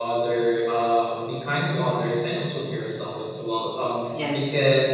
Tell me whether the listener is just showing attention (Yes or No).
Yes